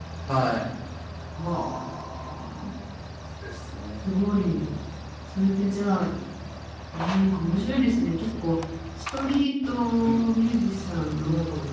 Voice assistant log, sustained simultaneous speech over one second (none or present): none